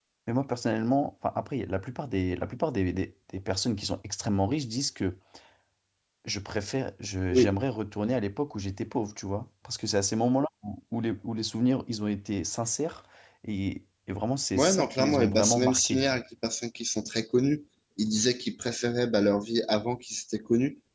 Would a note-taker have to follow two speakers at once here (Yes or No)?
Yes